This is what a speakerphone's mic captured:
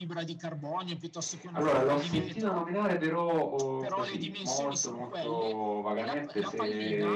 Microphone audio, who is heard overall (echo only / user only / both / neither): both